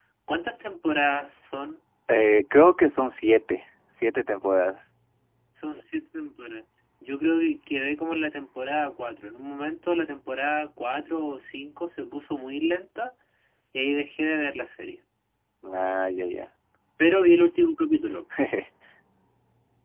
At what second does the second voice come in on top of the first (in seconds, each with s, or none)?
none